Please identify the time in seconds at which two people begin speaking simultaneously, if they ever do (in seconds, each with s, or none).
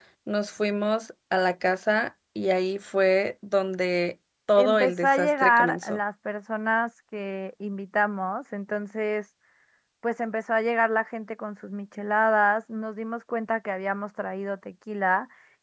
4.6 s